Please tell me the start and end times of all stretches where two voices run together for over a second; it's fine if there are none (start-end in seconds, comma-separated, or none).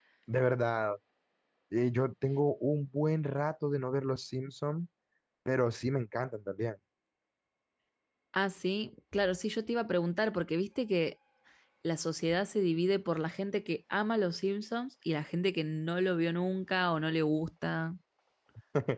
none